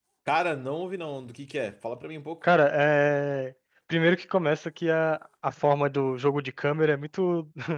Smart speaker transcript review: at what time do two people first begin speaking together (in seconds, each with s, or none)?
none